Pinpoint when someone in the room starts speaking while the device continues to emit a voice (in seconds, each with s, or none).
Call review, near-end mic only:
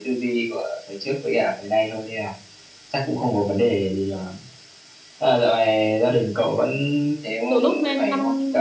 7.5 s